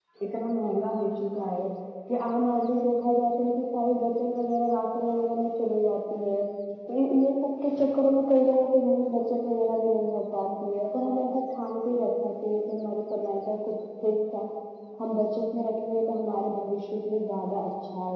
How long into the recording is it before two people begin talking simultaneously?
none

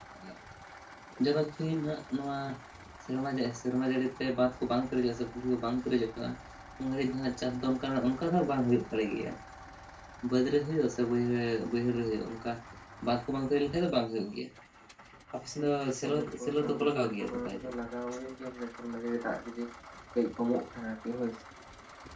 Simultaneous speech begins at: 15.6 s

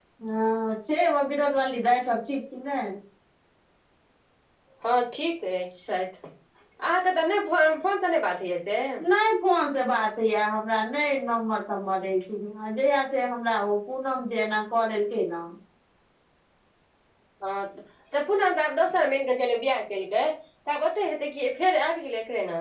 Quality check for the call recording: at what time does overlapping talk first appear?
none

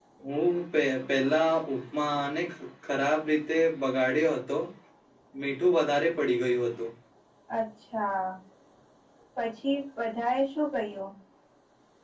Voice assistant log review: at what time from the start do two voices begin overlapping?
none

